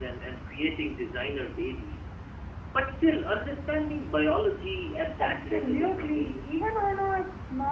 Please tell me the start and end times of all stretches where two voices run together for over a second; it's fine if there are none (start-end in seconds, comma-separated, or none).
5.2-6.5